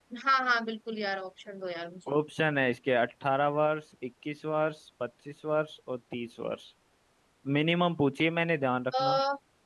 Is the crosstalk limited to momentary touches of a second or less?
Yes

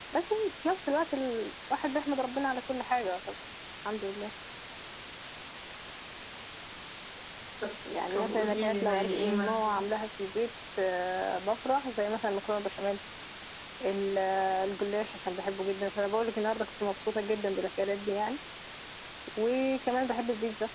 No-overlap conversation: No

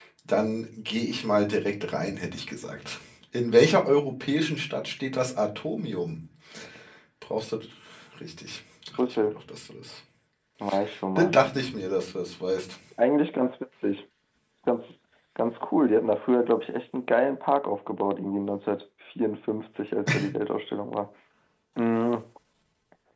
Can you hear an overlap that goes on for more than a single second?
No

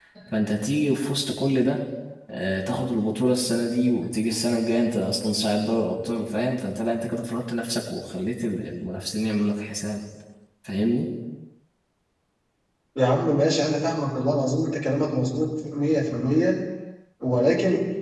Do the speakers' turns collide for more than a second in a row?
No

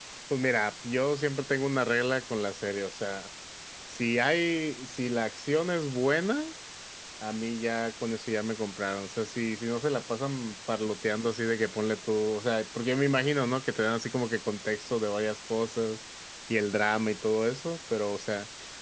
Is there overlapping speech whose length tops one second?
No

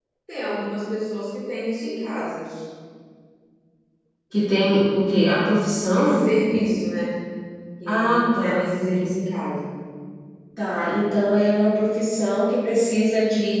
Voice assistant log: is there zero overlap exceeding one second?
No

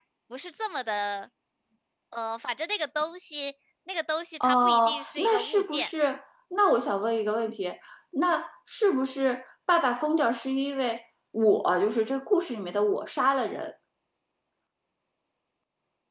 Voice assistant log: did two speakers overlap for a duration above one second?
Yes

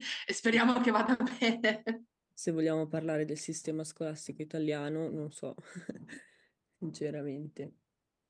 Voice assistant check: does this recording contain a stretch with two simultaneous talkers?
No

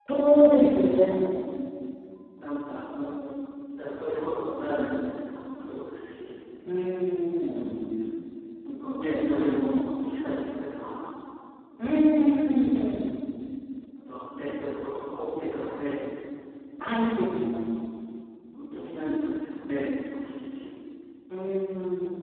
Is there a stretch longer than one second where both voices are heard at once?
No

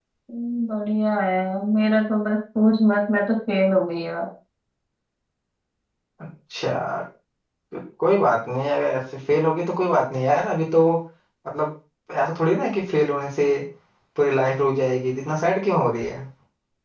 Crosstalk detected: No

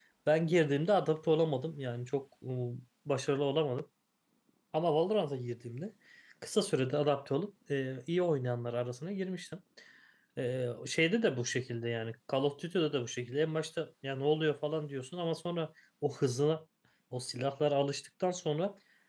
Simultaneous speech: No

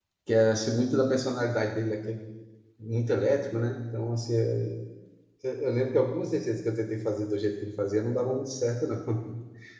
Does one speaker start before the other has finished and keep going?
No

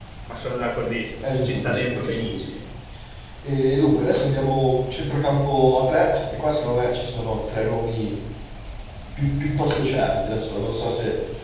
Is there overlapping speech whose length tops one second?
Yes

